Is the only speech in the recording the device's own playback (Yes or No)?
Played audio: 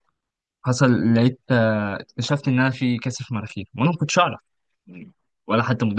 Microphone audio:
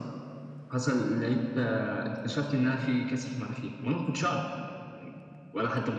Yes